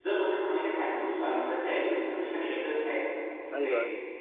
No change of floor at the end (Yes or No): No